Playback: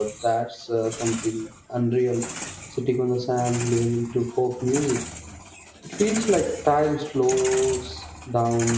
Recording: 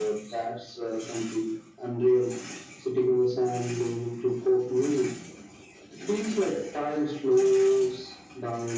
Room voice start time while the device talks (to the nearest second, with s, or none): none